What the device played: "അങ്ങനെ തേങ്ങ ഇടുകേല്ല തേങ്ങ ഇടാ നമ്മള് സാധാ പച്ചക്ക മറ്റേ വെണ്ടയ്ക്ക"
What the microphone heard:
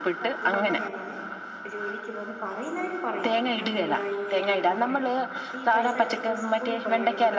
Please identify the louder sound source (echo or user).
echo